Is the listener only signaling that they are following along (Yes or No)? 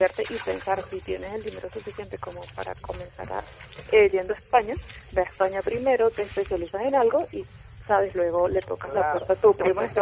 No